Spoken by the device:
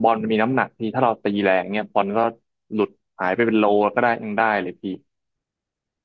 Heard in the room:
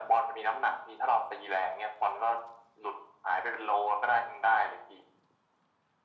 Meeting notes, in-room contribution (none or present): none